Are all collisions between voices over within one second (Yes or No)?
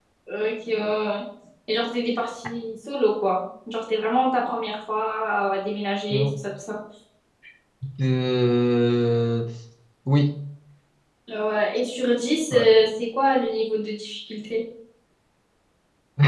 Yes